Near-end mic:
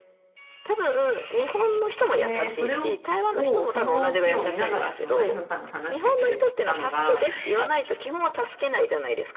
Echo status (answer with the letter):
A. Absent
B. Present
B